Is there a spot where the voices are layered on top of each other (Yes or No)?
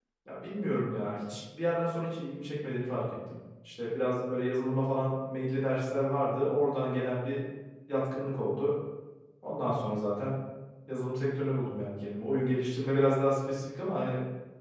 No